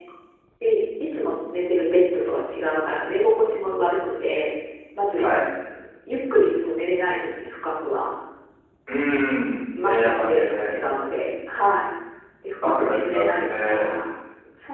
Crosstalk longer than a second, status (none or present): present